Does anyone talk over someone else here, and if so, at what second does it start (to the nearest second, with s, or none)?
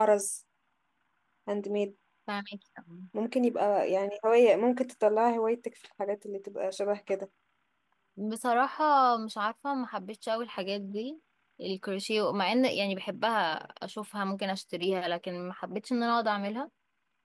none